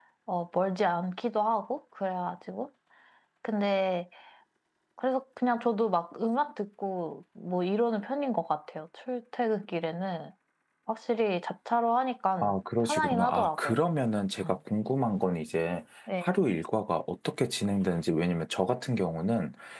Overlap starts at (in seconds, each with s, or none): 12.4 s